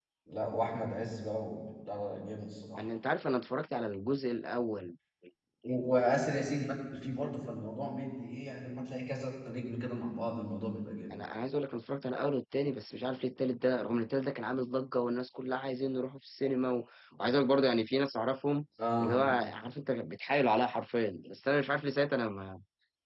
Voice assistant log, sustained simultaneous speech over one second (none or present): none